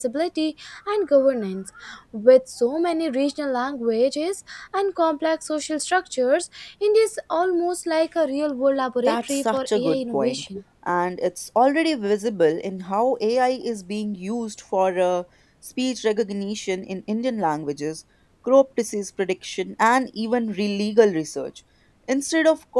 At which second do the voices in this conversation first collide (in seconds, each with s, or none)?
9.1 s